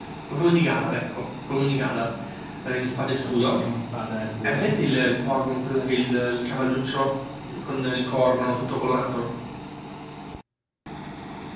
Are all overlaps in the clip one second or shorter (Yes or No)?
Yes